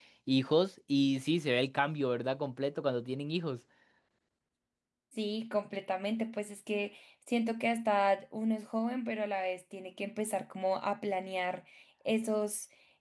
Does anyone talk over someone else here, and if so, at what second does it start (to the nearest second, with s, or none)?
none